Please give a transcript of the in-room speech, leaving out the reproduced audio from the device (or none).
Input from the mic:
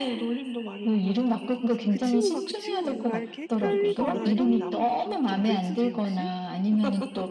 '그 친구가 그 친구인가.' 이렇게 헷갈리거나 이런 적도 있으세요? 혹시?